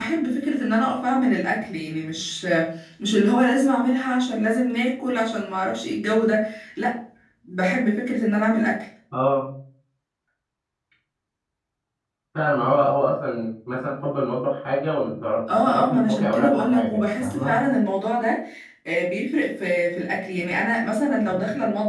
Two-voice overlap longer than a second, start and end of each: 15.5-17.6

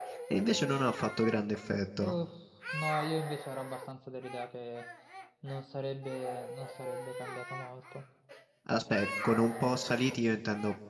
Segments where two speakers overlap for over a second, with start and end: none

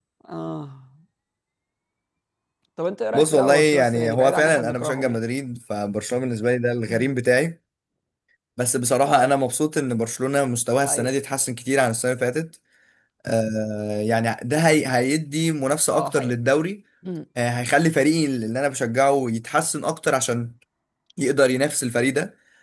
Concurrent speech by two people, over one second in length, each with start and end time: 3.1-5.2

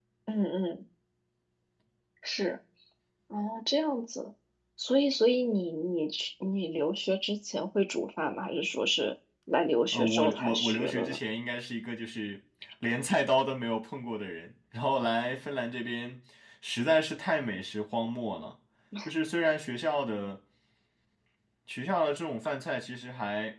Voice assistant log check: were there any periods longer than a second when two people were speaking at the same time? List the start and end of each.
9.9-11.2

